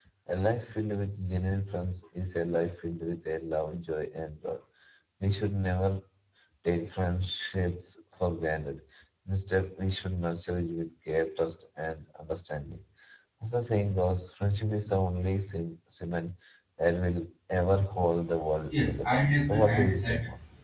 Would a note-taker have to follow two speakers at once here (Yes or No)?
Yes